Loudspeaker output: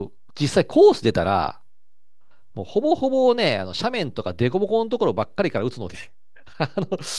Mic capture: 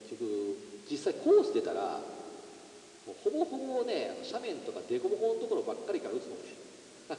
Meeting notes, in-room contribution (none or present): none